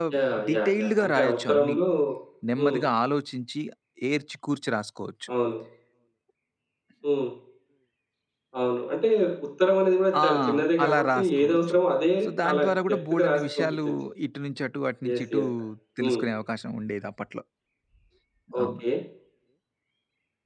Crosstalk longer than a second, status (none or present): present